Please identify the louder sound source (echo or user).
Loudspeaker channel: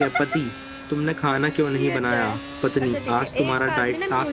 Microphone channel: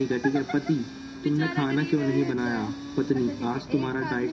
echo